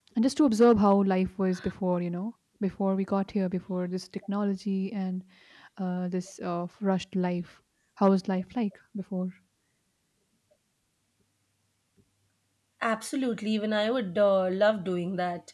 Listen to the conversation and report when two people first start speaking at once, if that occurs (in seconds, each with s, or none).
none